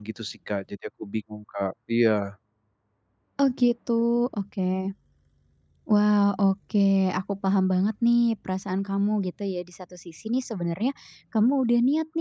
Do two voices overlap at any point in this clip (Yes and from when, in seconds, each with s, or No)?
No